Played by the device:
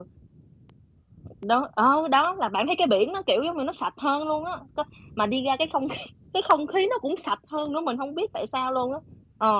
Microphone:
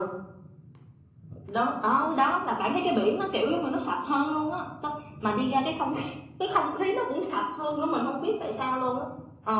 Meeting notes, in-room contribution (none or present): none